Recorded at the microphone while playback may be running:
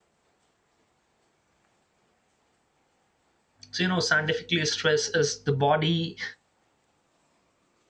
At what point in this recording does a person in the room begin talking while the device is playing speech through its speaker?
3.7 s

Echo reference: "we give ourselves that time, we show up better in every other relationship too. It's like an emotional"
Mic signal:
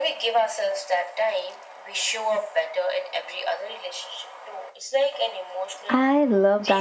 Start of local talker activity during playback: 5.9 s

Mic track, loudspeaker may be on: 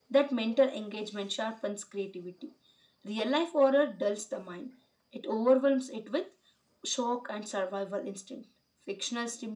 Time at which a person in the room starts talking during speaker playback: none

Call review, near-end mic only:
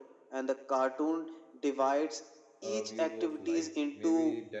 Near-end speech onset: 2.6 s

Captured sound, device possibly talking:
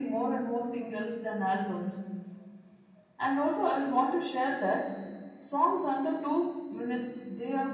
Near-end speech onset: none

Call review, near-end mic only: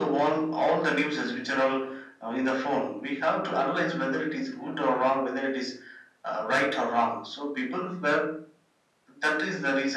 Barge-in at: none

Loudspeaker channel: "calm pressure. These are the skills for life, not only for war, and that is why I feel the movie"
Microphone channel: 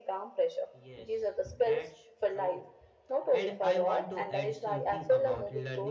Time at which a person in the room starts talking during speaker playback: 0.7 s

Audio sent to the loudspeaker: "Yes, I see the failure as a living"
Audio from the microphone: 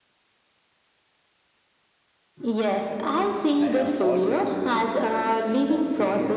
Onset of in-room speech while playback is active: 3.6 s

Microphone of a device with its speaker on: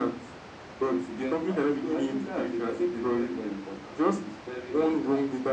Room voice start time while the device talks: none

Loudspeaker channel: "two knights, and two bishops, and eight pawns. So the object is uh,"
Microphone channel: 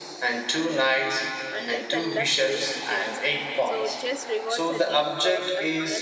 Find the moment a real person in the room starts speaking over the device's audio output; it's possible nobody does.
1.5 s

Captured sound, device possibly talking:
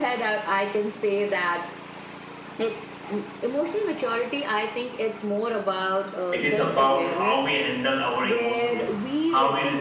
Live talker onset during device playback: 6.3 s

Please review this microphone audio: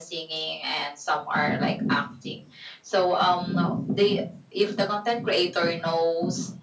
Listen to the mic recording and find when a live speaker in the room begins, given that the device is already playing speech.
none

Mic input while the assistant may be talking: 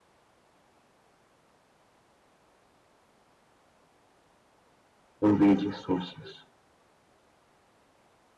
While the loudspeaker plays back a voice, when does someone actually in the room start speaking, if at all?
5.2 s

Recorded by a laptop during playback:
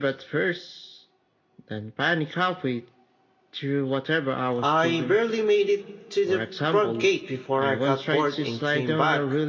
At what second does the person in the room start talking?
4.6 s

